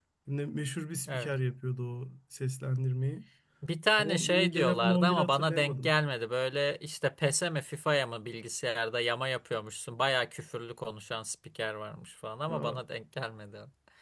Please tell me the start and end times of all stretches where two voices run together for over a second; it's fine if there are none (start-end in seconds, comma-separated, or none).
4.0-5.9